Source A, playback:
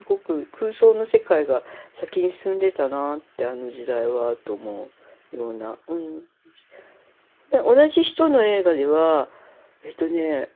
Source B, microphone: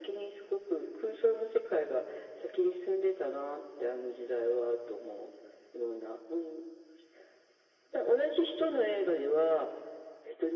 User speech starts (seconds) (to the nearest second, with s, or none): none